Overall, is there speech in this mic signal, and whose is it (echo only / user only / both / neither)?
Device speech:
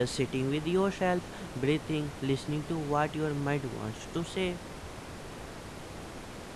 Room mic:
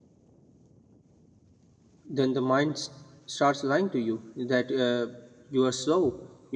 user only